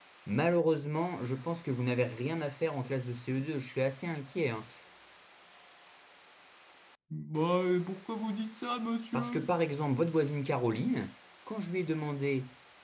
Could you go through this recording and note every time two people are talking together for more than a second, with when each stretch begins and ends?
none

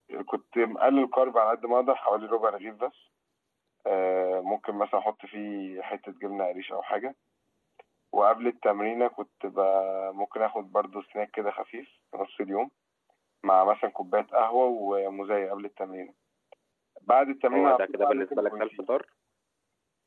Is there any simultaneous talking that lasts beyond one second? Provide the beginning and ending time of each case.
17.5-18.9

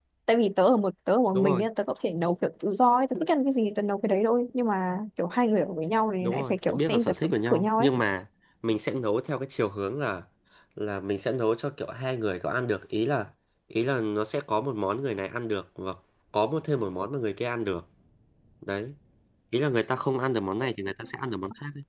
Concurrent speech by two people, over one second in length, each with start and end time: 6.2-7.9

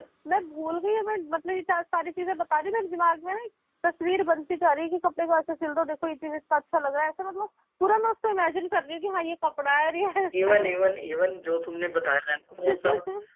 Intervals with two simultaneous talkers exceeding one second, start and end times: none

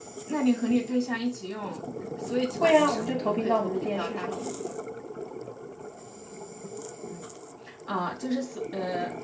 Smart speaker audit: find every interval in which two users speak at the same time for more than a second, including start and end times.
2.6-4.4

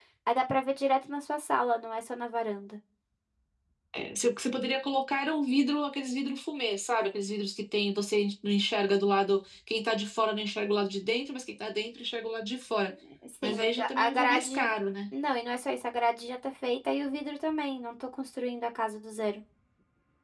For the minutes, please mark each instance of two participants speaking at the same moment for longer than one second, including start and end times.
13.4-14.7

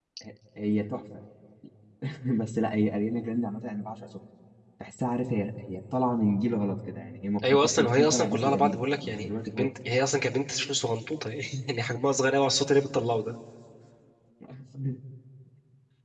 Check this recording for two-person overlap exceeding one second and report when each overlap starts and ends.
7.5-9.7

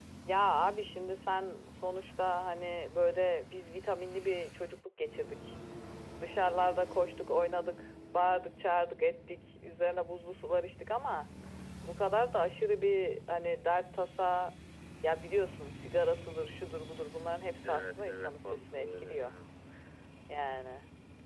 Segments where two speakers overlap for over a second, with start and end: 17.6-19.3

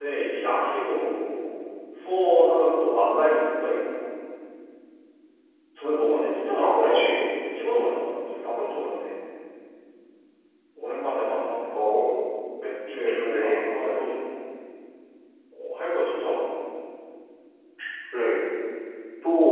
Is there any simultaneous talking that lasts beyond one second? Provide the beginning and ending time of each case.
none

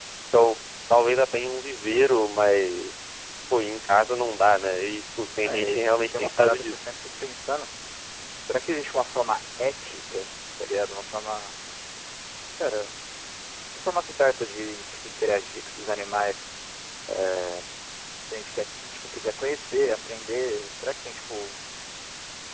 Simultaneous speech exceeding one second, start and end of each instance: 5.4-6.9

